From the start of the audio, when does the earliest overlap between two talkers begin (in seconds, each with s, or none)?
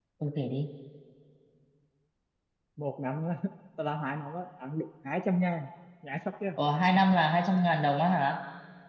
none